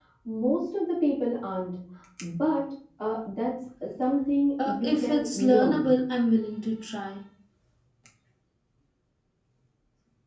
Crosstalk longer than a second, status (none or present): present